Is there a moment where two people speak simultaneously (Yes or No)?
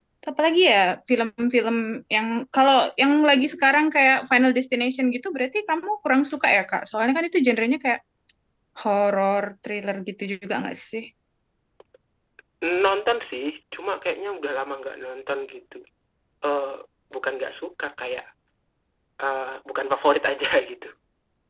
No